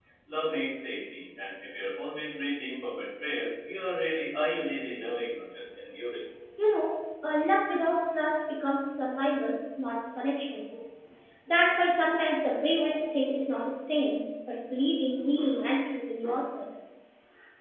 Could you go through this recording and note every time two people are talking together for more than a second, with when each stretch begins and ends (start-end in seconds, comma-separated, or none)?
none